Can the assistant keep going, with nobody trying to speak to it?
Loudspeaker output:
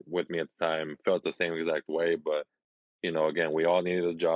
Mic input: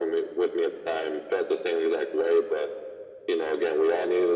Yes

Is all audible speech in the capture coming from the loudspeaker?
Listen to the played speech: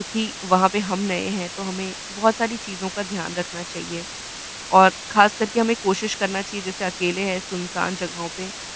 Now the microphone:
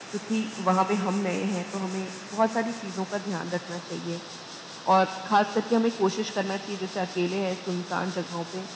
Yes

